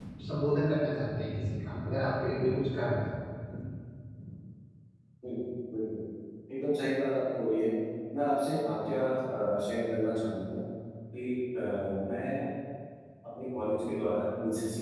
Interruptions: none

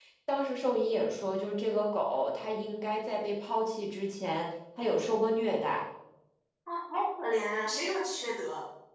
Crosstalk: none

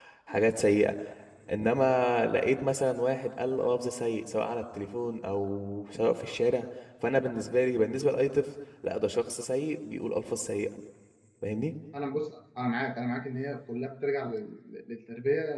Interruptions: none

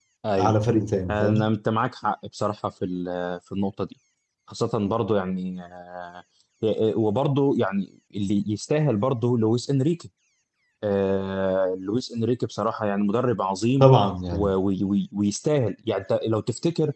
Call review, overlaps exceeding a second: none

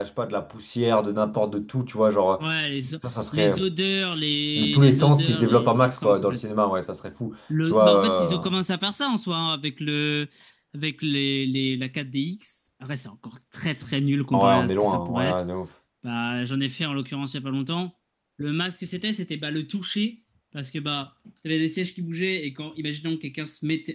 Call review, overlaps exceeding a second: present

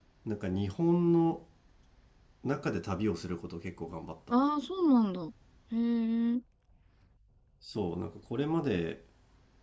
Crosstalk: none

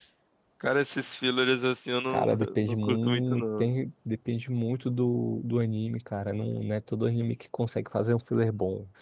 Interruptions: present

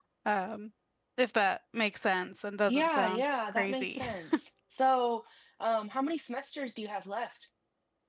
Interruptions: present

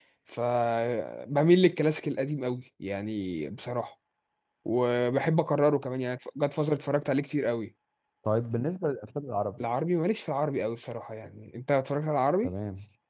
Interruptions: none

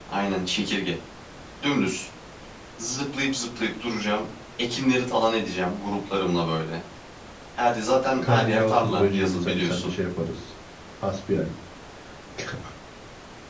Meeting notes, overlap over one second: present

